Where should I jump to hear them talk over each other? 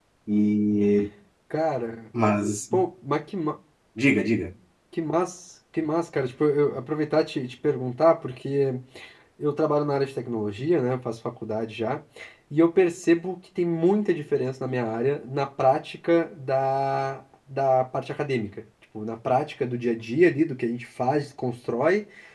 none

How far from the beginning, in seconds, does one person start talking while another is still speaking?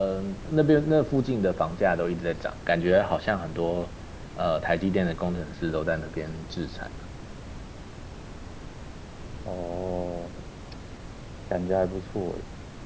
none

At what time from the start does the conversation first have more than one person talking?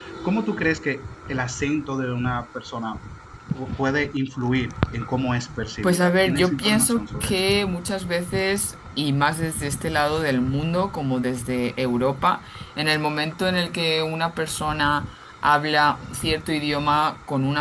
5.8 s

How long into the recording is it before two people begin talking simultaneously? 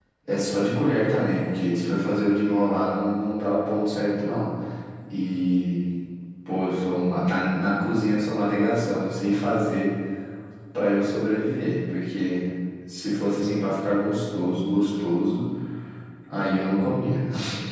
none

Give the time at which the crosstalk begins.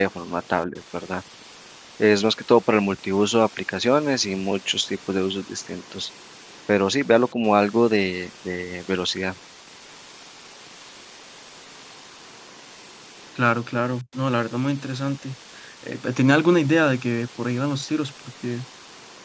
none

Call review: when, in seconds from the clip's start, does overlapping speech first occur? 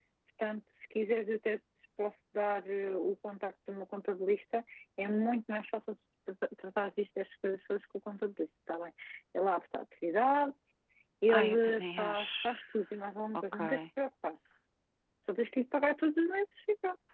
11.3 s

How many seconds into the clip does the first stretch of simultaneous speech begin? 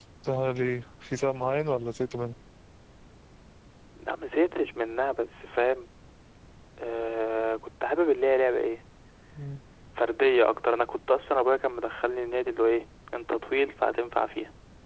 none

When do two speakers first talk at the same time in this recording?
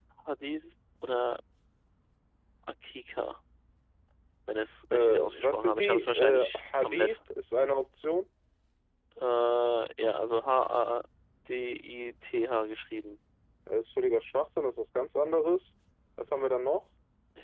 4.9 s

